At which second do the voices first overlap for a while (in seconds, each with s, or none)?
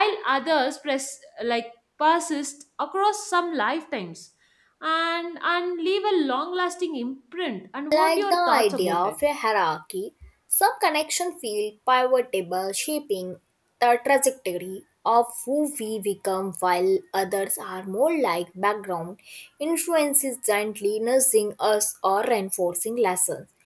7.9 s